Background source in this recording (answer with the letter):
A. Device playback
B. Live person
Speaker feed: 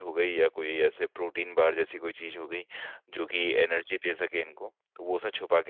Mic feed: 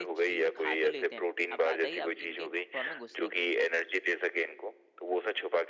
B